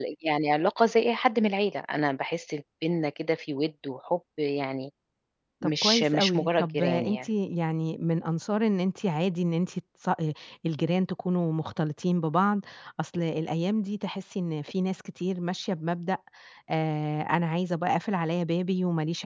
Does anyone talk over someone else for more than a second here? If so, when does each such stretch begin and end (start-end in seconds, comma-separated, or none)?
5.6-7.2